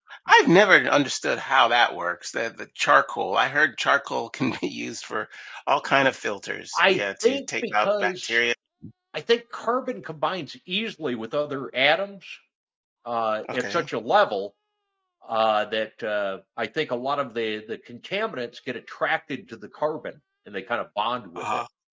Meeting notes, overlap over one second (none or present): present